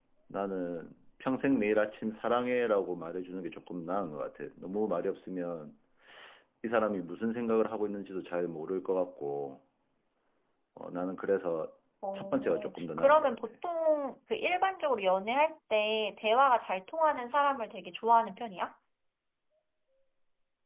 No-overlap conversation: No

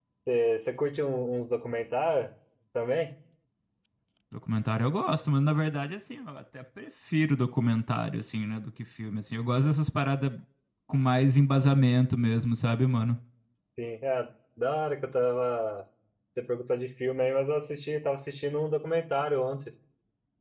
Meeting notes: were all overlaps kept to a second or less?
Yes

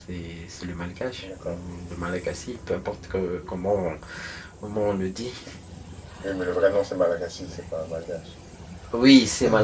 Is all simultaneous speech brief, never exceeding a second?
Yes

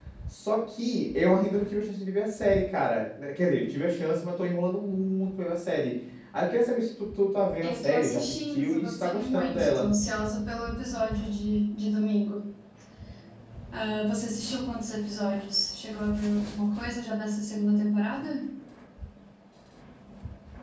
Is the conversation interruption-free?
No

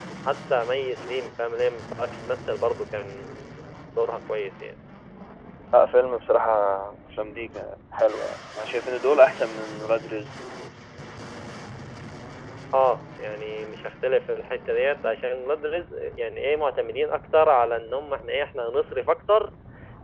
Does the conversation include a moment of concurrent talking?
No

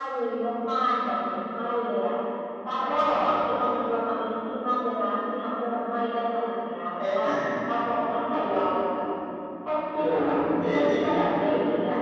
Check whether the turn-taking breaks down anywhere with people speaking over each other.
Yes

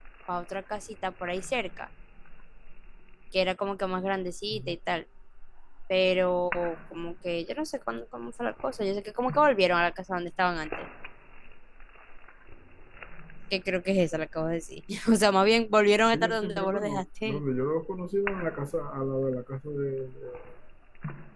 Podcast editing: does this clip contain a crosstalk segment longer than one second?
Yes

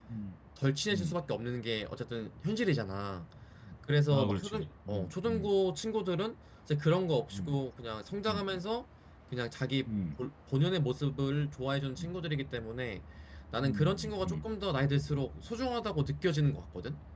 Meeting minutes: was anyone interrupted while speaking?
Yes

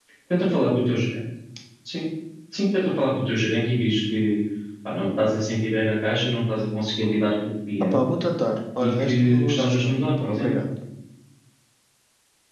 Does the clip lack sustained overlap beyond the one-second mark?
No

